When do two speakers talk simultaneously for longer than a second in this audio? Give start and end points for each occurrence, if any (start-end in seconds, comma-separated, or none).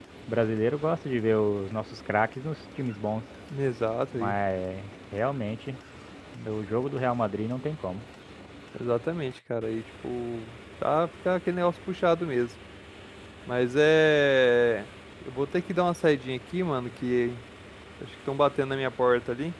none